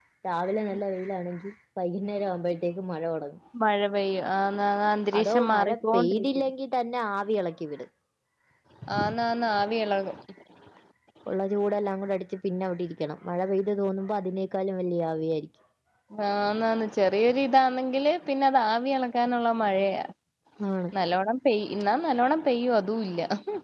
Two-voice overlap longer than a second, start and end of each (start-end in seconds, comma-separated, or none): 5.2-6.5